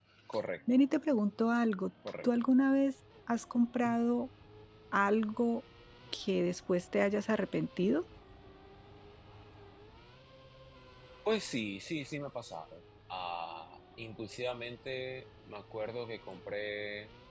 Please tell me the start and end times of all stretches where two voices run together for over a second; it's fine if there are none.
none

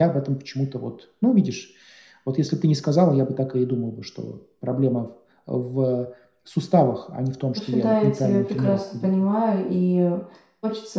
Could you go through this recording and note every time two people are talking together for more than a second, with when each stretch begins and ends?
7.6-9.1

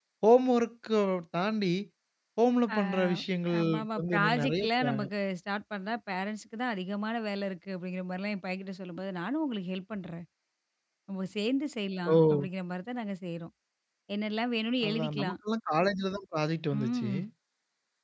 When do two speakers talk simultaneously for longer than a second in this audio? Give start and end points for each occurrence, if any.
3.6-5.0

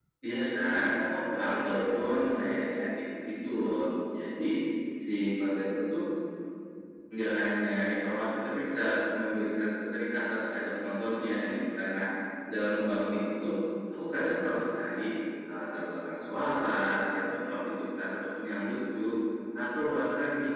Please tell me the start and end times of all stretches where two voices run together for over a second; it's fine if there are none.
1.4-2.8

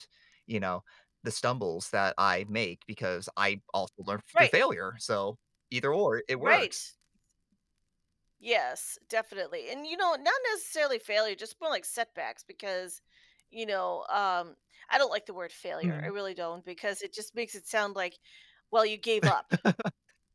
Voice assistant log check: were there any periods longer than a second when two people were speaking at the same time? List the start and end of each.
none

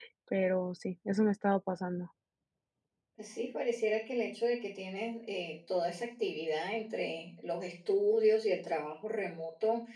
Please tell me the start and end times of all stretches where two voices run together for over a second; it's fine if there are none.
none

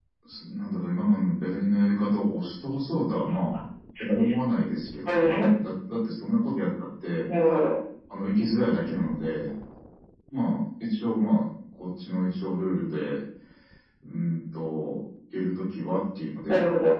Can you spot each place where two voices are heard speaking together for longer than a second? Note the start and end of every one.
none

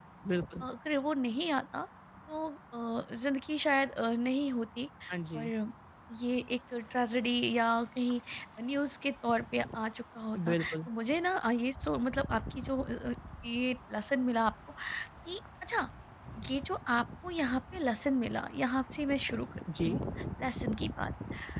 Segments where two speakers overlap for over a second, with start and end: none

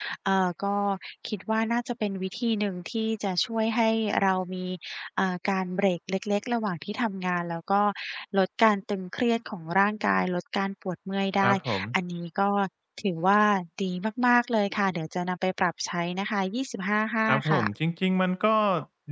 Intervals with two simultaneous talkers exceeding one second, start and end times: none

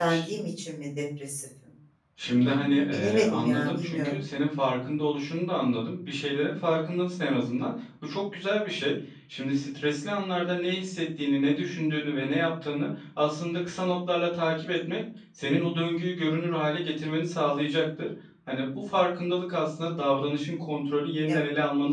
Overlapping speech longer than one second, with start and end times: 2.2-4.2

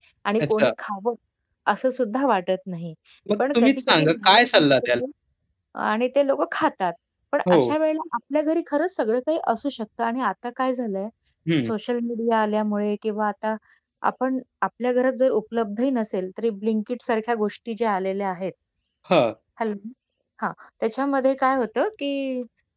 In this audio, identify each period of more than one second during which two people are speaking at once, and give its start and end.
3.4-5.0

